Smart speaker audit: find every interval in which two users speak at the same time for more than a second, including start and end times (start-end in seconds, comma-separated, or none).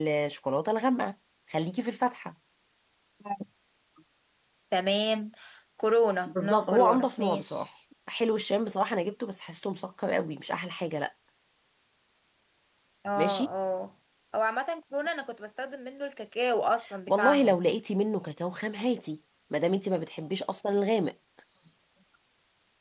6.3-7.7